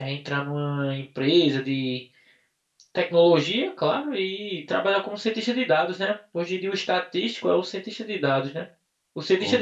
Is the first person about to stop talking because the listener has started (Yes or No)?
No